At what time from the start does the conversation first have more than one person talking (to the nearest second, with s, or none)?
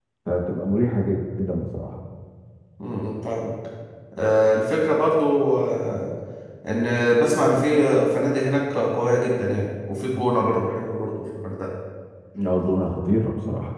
none